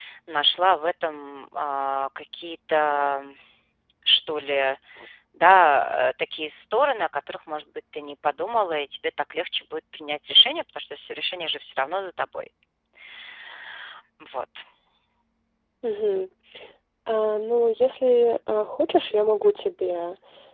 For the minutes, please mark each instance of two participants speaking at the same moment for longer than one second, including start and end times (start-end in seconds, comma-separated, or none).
none